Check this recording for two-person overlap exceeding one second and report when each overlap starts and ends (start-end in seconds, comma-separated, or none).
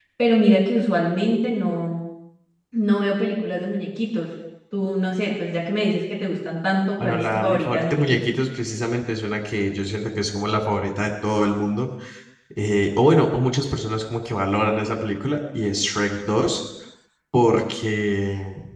7.0-8.4